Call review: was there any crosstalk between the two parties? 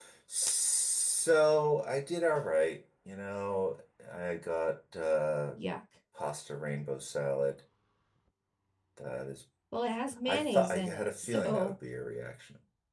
Yes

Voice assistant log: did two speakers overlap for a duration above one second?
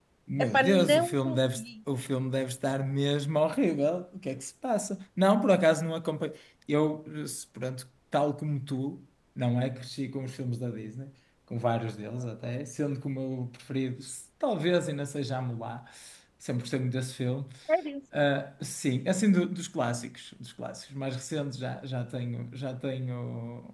Yes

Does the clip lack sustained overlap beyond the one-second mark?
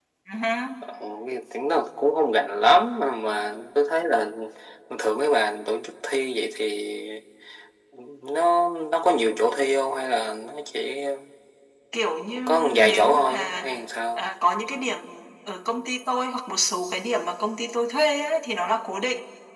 No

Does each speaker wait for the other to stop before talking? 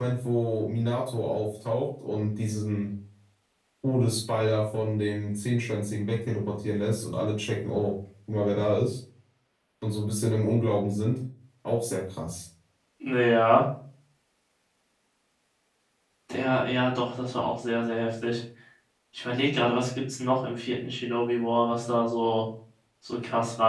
Yes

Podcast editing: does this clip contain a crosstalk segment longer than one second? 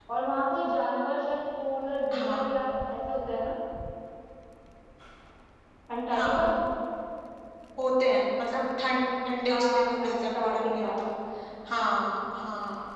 Yes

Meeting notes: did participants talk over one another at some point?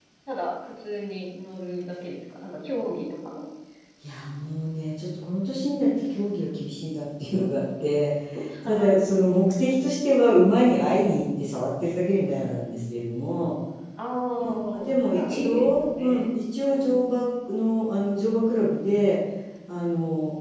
Yes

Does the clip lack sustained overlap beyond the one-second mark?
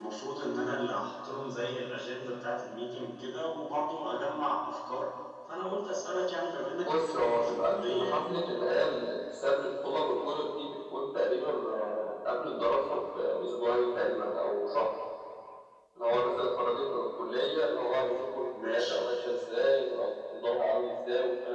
No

